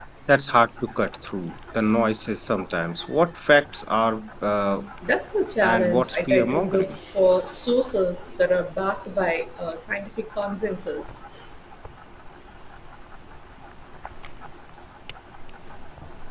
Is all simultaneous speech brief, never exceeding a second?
No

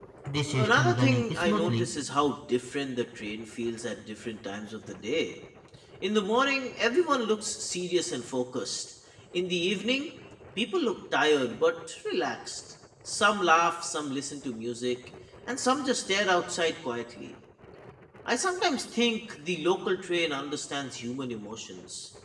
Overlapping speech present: Yes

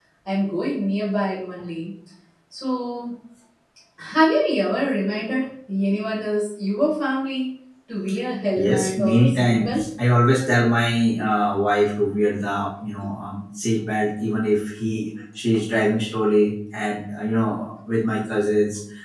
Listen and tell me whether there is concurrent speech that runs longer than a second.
Yes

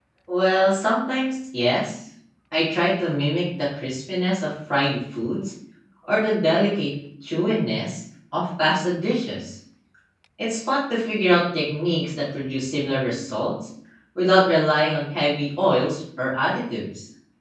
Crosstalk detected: No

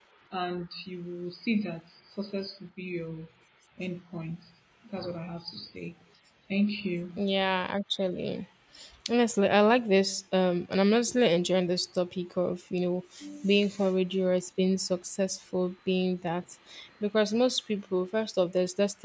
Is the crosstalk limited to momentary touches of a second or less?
Yes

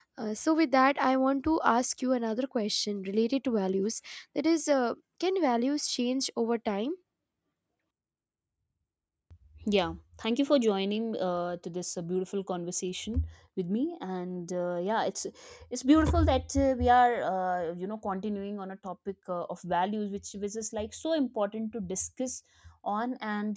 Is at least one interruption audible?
No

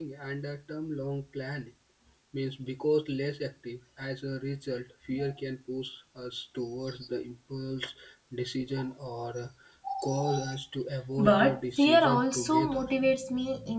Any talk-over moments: Yes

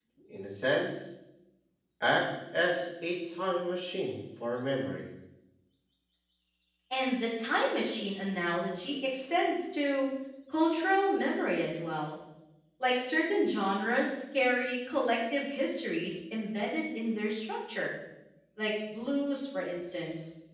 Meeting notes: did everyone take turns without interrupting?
Yes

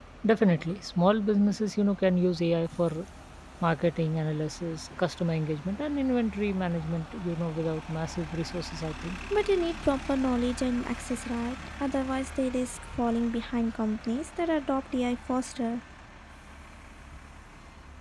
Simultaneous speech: No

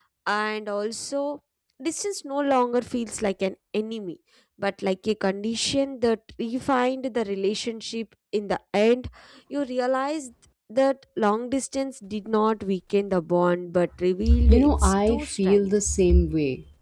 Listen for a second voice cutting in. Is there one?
Yes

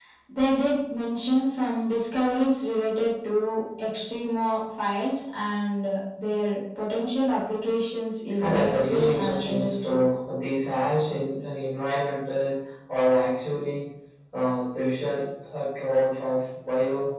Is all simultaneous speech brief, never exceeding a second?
No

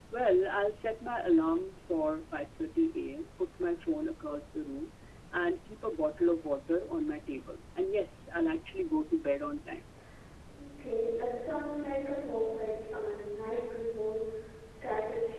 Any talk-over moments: No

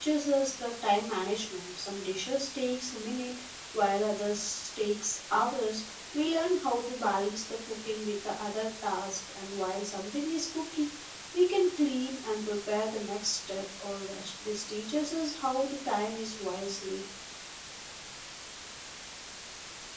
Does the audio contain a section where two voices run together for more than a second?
No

